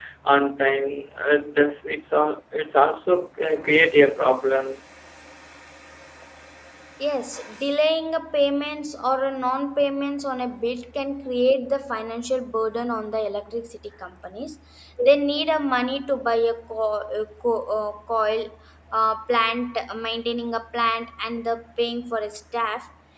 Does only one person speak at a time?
Yes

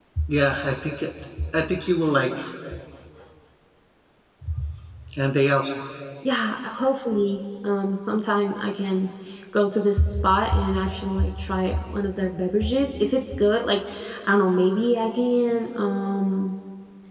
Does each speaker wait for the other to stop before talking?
Yes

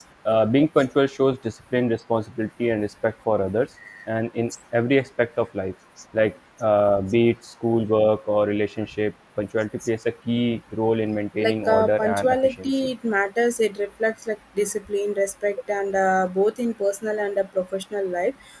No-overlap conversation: No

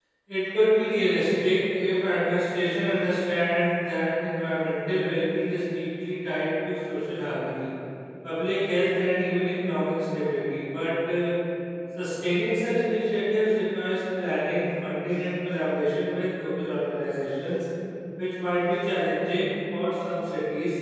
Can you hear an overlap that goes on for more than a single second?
No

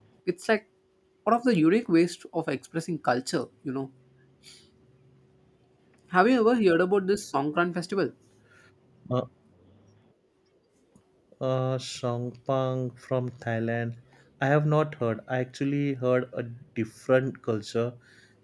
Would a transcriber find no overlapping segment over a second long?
Yes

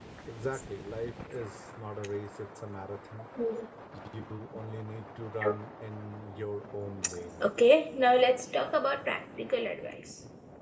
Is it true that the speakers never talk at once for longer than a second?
Yes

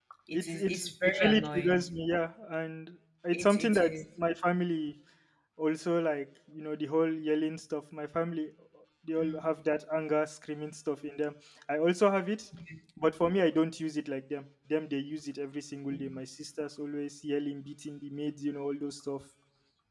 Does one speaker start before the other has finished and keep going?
Yes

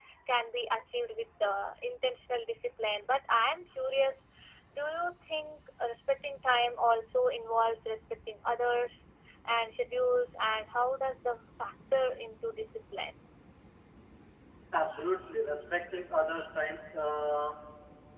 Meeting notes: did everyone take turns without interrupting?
Yes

